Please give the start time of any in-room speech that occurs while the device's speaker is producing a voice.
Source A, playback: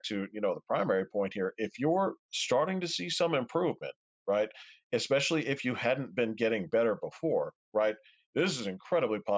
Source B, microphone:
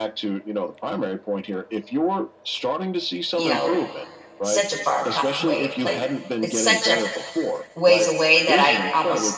3 s

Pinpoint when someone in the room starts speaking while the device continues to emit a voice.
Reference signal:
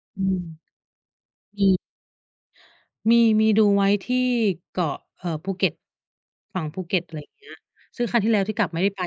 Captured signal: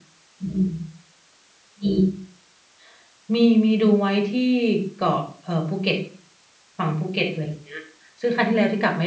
none

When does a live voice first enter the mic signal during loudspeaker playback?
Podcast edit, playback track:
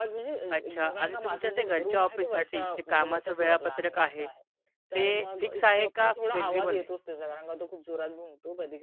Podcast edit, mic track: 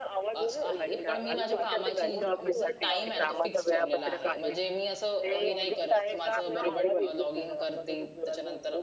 0 s

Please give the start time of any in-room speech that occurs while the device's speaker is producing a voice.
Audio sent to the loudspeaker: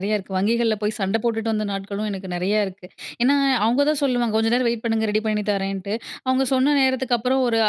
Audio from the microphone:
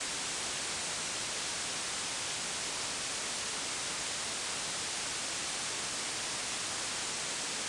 none

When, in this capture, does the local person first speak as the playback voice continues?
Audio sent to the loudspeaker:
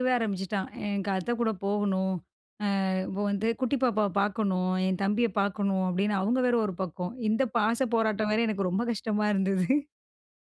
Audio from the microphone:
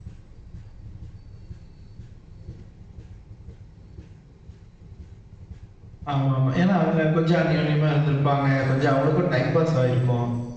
6 s

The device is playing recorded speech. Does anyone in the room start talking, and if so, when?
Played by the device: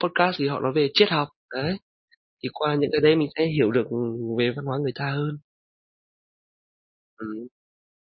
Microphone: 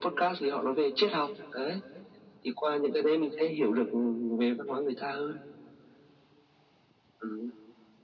none

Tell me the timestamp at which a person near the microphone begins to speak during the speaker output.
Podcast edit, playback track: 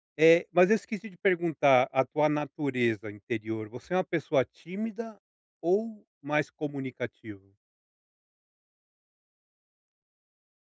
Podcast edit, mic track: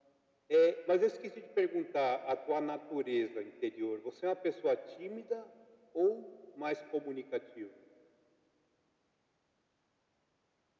none

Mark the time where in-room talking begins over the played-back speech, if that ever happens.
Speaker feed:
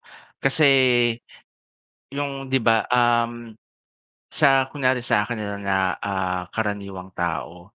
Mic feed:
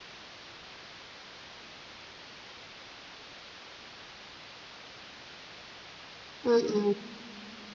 6 s

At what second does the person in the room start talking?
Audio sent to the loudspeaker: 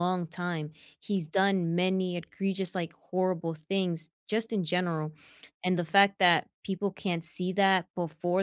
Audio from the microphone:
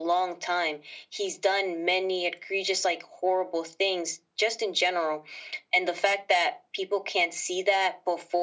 none

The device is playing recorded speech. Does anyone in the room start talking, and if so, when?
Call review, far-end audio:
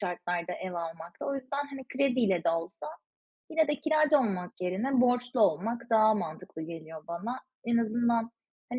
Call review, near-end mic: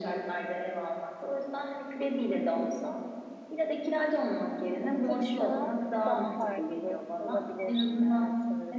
5 s

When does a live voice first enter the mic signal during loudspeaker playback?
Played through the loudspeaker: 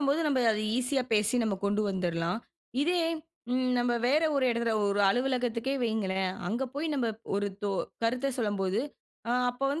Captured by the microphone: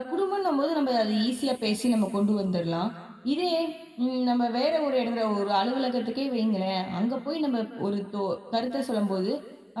none

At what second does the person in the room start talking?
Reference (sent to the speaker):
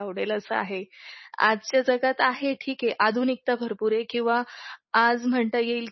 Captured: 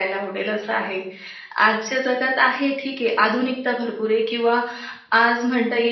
none

